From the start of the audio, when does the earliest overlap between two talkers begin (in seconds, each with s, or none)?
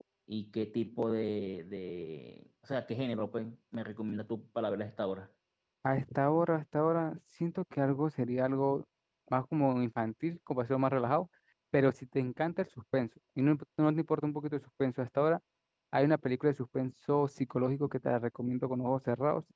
none